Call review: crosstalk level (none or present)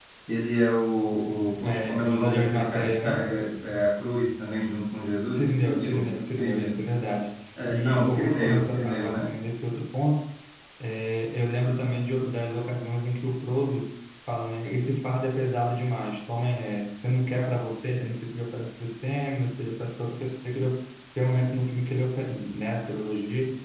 present